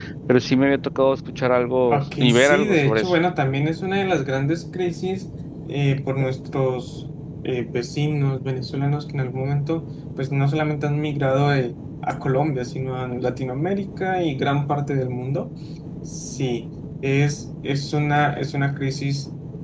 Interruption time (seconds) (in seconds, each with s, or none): 1.9 s